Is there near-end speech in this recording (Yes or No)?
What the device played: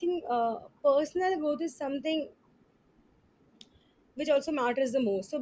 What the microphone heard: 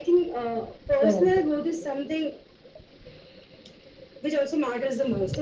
Yes